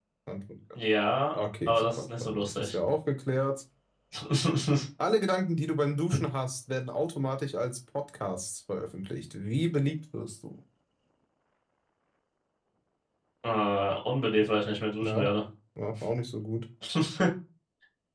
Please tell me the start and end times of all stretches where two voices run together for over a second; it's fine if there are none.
1.3-2.8

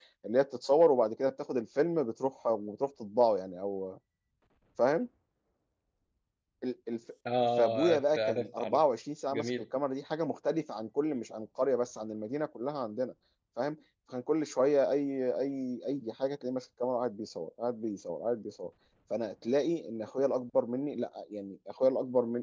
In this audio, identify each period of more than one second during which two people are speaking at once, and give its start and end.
7.6-8.8

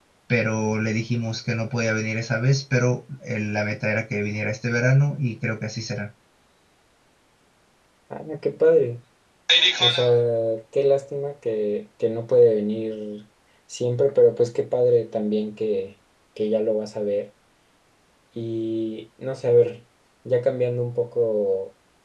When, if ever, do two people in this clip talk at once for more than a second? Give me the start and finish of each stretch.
none

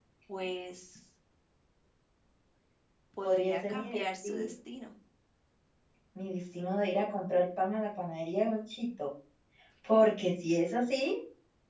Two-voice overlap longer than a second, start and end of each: 3.2-4.5

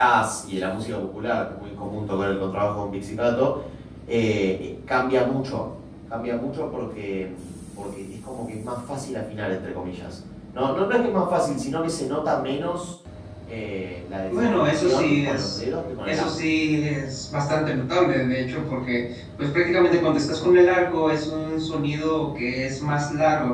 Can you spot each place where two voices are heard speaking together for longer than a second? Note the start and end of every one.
14.3-15.6

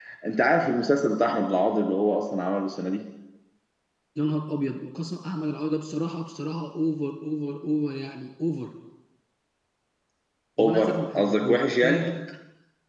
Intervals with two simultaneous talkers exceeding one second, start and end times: 10.6-12.0

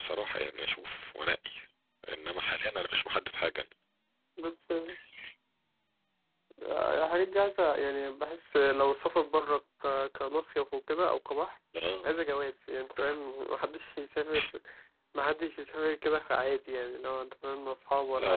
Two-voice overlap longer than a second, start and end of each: none

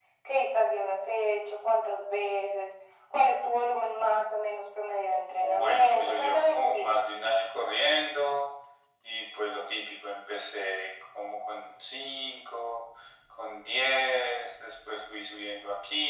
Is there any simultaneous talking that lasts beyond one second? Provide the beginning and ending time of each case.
5.3-7.0

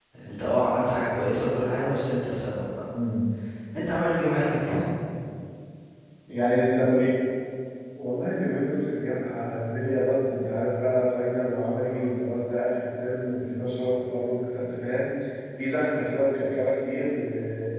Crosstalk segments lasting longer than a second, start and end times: none

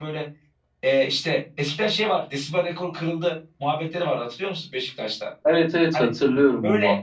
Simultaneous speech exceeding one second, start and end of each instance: none

